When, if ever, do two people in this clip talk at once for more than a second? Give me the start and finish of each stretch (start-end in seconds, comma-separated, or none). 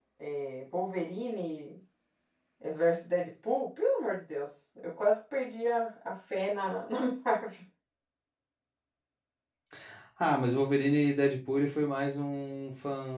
none